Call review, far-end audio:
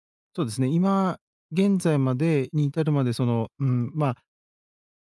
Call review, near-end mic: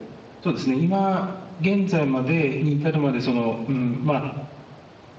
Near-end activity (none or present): none